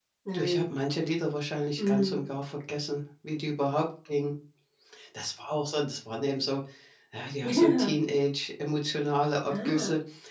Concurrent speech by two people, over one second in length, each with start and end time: none

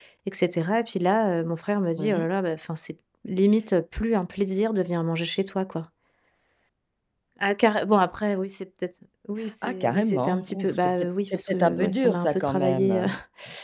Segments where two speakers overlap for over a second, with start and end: 9.6-13.1

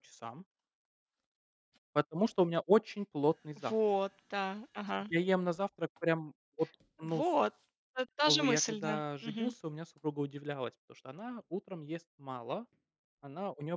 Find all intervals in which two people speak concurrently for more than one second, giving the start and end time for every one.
8.3-9.5

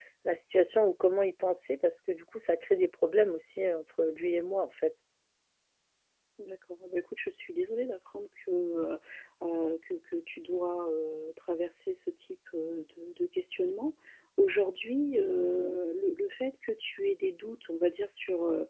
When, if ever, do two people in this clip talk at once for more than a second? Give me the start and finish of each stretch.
none

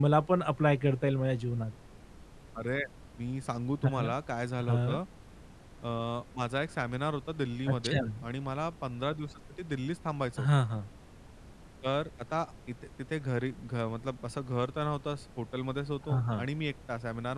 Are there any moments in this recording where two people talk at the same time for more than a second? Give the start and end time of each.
none

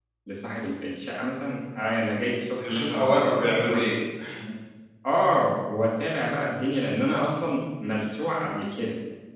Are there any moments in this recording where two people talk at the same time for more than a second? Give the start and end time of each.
2.6-4.0

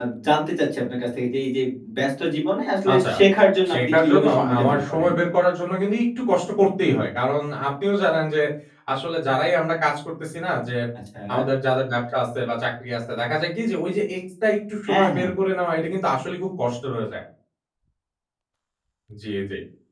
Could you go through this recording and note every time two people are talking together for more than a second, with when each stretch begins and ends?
3.7-5.1

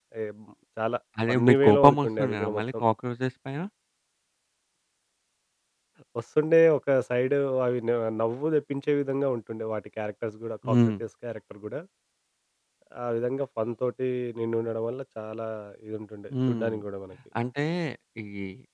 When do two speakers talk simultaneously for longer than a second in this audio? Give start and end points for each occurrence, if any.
1.3-2.8

